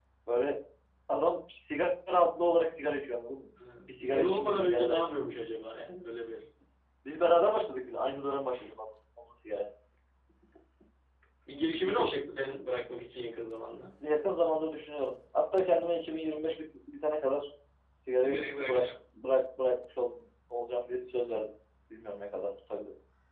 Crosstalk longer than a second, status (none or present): present